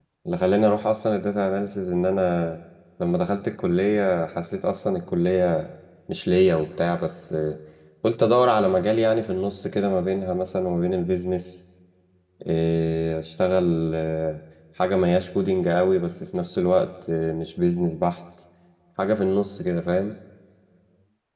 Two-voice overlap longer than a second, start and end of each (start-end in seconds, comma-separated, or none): none